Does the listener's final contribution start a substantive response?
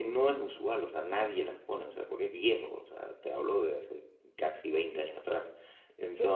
Yes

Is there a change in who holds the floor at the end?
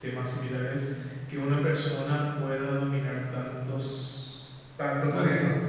No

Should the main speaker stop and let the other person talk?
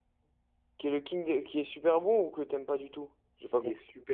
Yes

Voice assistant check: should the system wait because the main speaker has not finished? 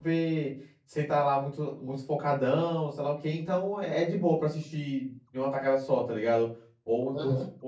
Yes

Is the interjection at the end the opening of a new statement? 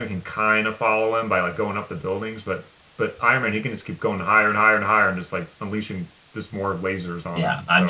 Yes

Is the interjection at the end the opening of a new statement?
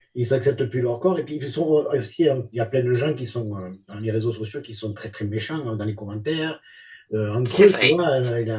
No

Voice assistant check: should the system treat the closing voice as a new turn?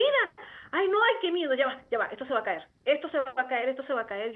No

